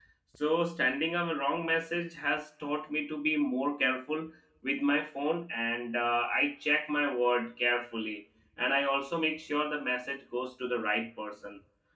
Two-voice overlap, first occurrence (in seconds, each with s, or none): none